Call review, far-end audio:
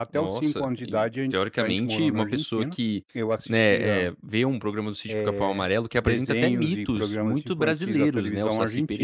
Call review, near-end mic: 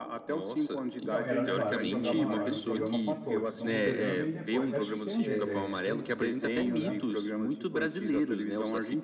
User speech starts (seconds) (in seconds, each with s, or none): 1.0 s